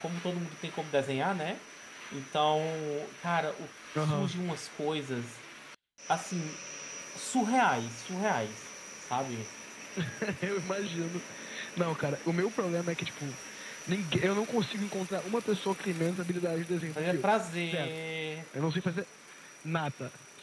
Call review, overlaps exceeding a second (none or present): none